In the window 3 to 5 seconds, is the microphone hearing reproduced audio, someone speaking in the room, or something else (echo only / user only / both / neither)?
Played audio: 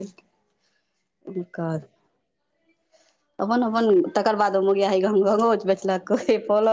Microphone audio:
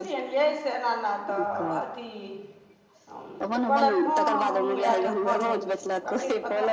both